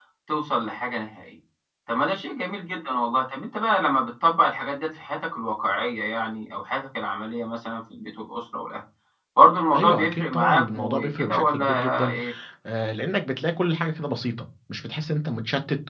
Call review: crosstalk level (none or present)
present